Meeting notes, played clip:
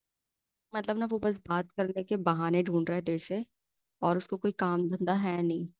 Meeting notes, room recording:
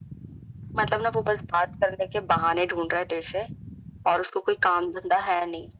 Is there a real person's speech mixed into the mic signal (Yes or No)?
No